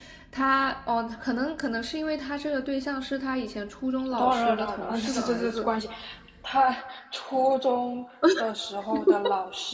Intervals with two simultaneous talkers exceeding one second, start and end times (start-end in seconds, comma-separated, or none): 4.2-5.7